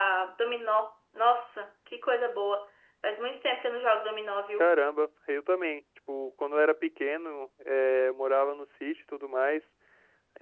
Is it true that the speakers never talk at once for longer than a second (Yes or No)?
Yes